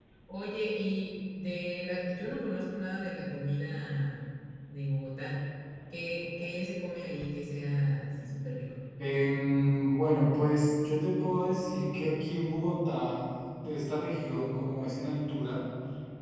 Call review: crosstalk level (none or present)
none